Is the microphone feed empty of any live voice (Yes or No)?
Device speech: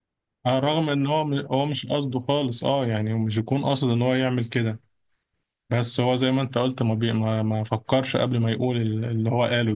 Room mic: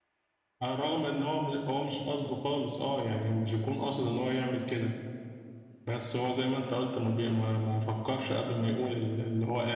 Yes